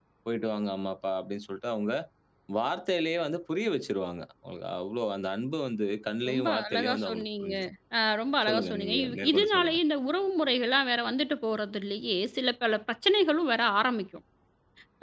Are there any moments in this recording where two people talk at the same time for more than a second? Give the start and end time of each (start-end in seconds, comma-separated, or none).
6.3-7.5, 8.5-9.8